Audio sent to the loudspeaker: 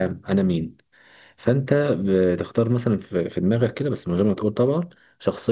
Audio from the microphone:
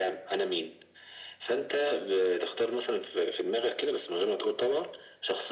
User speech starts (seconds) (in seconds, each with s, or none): none